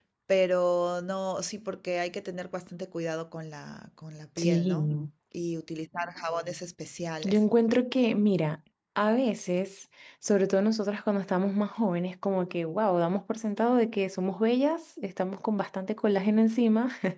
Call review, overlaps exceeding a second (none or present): none